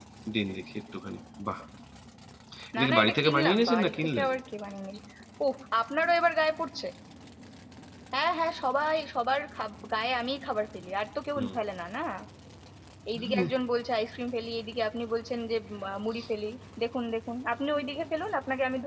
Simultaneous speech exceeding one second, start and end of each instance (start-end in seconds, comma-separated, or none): 2.8-4.3